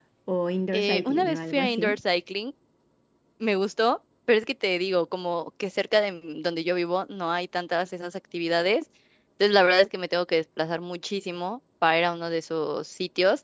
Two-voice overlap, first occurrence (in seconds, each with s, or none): 0.7 s